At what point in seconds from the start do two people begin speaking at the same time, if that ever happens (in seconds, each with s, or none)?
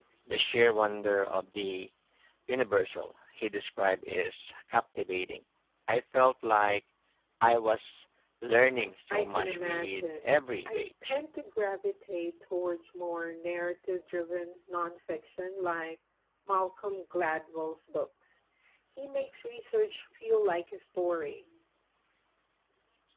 9.1 s